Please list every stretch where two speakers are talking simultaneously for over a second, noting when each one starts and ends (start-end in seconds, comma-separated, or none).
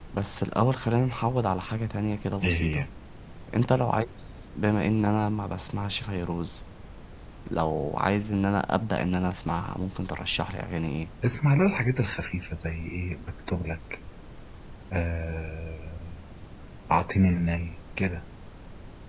none